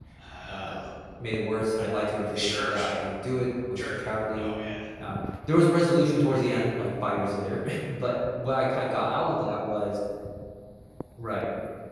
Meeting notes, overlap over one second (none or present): none